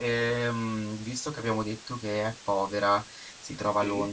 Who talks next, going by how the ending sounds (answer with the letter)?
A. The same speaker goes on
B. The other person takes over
A